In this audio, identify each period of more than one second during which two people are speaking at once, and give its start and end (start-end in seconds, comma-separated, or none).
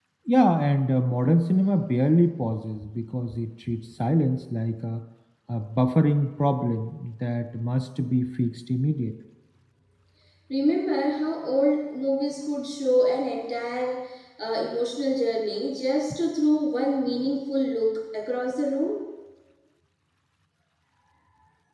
none